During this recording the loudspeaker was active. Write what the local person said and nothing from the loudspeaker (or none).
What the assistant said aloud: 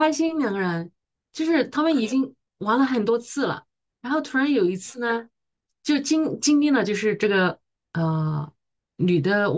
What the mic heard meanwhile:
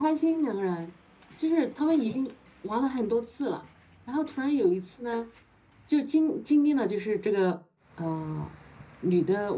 none